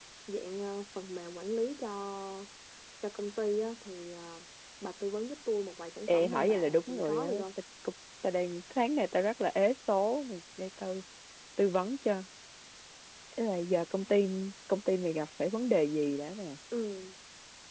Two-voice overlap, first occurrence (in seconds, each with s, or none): 6.1 s